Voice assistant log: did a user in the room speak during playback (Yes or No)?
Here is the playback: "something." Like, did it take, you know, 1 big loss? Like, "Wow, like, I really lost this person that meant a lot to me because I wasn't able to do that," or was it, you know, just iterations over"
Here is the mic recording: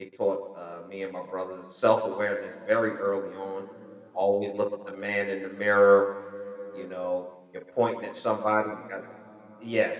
Yes